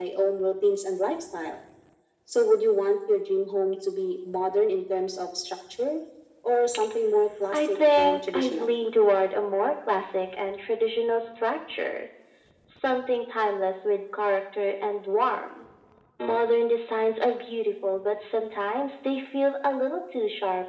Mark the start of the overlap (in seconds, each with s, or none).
7.5 s